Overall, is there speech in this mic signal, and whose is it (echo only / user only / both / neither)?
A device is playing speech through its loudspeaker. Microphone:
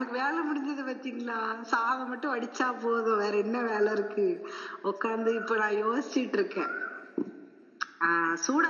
echo only